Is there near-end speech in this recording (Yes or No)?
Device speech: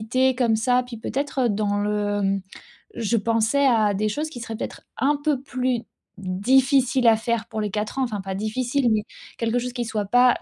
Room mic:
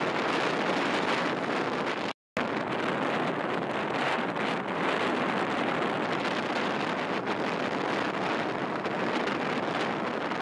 No